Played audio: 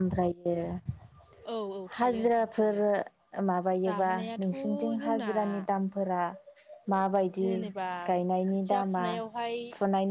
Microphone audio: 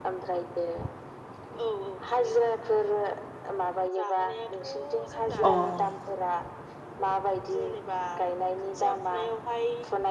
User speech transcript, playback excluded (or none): अ औ